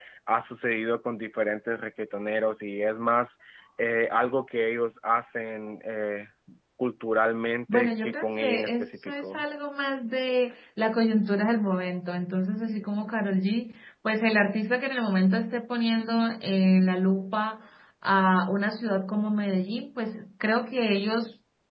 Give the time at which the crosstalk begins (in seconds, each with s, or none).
7.7 s